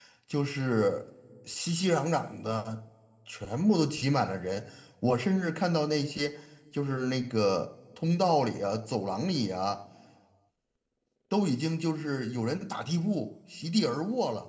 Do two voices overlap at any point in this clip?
No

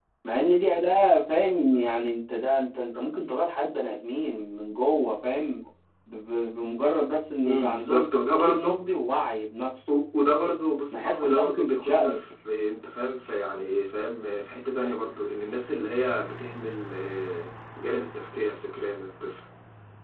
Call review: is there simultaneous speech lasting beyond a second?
Yes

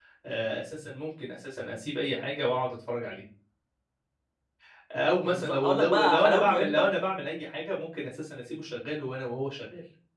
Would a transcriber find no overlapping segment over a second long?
No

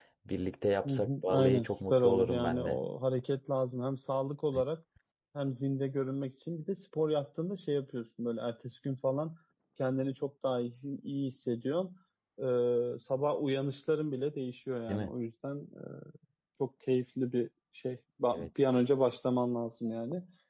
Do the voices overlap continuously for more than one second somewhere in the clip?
Yes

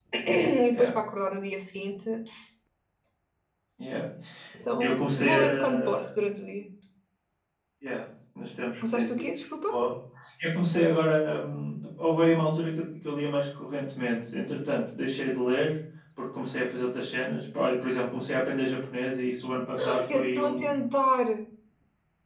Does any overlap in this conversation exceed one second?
Yes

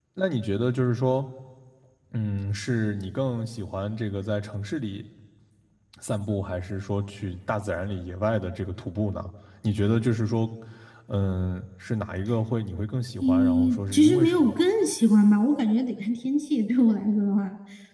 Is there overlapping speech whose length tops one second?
Yes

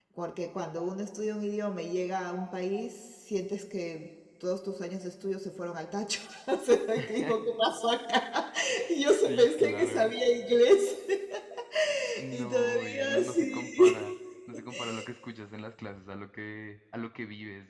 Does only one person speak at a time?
No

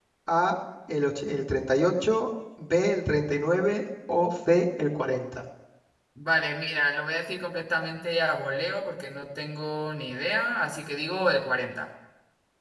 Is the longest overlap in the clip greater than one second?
No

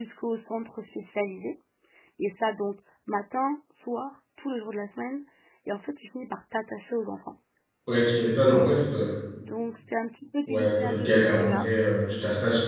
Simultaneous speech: Yes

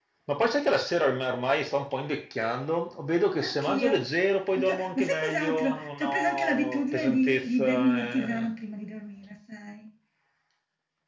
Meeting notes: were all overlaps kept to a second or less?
No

